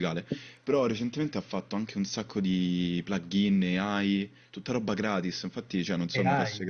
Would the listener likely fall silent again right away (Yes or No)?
Yes